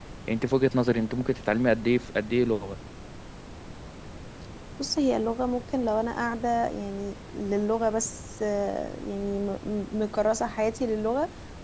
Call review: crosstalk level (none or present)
none